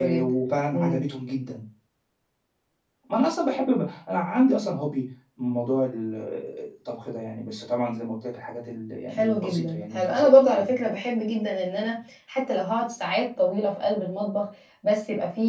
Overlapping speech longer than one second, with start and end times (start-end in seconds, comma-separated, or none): 9.1-10.7